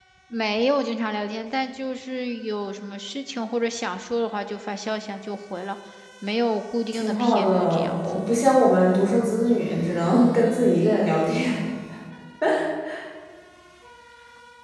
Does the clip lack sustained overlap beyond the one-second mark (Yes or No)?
No